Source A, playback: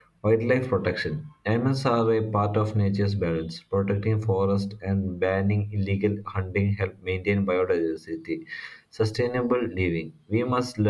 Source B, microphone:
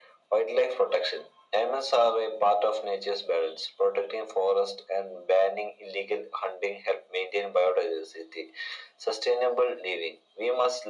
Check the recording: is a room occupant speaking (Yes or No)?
No